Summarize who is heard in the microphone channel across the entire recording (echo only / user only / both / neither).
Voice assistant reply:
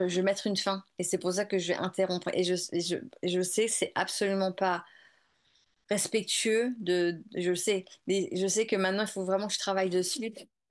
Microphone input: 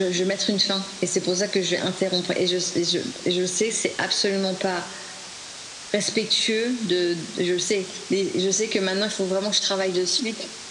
echo only